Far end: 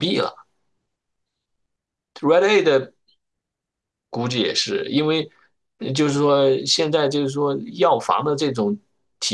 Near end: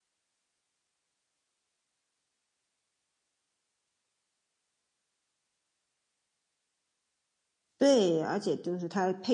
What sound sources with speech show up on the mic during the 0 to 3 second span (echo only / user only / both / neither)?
neither